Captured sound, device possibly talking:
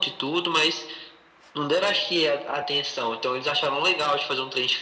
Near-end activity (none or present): none